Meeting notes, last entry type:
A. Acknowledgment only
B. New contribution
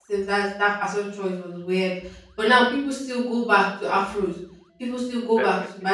A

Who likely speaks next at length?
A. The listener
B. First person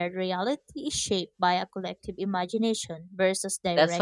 A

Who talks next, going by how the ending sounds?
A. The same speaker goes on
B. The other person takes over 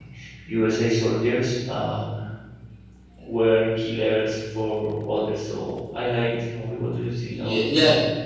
B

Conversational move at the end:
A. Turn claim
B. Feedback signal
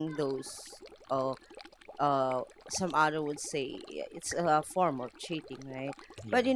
B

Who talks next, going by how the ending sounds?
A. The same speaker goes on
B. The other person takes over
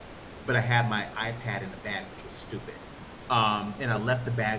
A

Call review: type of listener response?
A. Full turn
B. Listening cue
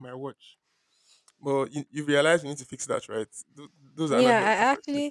A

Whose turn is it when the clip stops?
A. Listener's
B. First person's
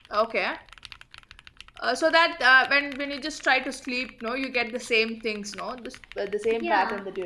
A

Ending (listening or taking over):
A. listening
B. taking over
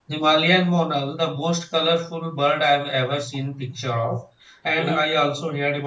A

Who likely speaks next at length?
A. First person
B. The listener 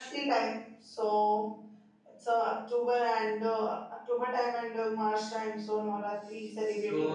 B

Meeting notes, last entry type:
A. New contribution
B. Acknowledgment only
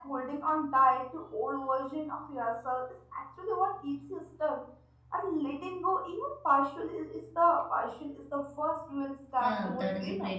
A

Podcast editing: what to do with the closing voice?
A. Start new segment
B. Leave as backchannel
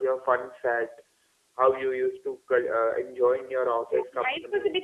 A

